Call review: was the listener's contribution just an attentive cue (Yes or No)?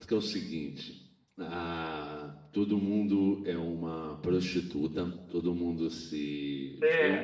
Yes